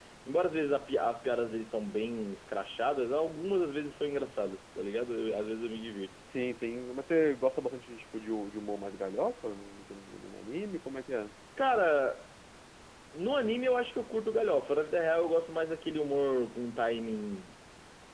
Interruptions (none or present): none